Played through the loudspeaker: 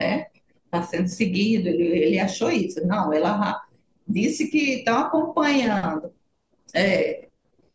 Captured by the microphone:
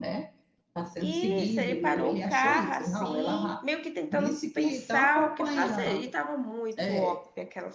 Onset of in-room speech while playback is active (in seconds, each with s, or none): 1.0 s